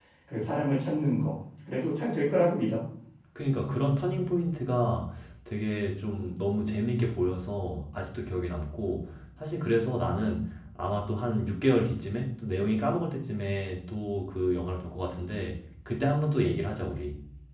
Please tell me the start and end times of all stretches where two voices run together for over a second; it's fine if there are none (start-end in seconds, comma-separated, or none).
none